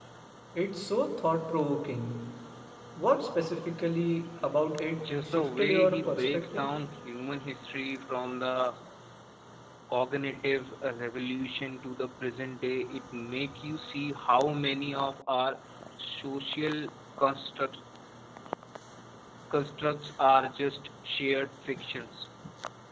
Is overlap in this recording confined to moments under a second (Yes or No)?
No